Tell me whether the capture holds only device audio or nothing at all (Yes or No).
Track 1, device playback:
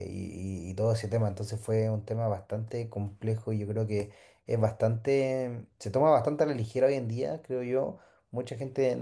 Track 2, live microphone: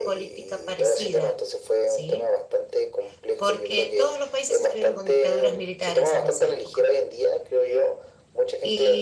No